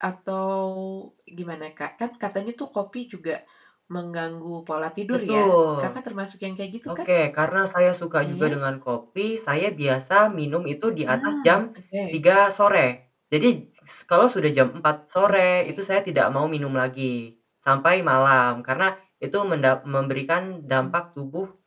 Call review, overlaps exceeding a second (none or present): none